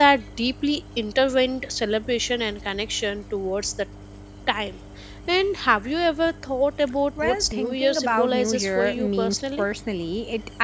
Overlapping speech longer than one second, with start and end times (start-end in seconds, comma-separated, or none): 7.2-9.7